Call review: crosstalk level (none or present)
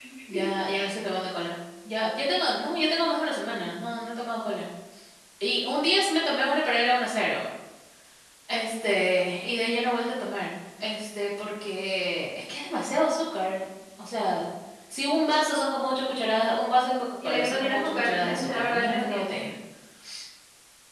present